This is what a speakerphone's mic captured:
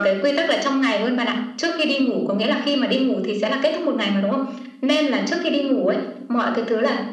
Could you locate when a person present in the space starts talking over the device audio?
none

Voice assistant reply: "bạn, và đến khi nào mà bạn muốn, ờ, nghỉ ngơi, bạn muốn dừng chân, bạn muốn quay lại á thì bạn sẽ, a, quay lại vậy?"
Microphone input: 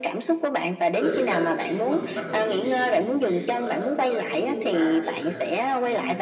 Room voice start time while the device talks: 0.9 s

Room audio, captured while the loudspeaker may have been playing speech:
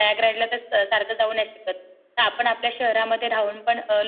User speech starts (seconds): none

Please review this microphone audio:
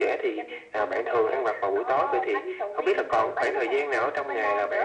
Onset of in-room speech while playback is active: none

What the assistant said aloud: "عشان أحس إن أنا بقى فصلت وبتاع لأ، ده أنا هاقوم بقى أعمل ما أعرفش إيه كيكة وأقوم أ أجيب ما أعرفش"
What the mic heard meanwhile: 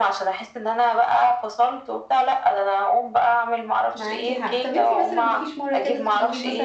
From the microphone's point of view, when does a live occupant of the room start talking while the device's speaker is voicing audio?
4.0 s

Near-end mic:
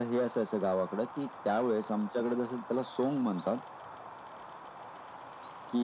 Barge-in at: none

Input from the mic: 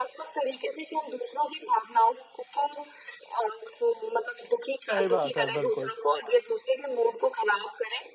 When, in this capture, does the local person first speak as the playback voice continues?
4.9 s

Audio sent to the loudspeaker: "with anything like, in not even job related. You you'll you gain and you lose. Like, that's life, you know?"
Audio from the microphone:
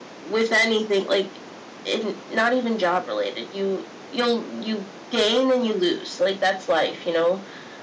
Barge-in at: none

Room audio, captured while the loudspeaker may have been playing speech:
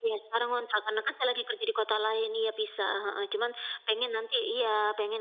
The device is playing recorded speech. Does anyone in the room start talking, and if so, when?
none

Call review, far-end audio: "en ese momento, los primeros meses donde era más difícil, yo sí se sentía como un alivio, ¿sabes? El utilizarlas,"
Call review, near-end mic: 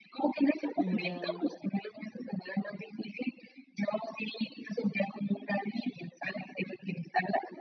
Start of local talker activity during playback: 0.8 s

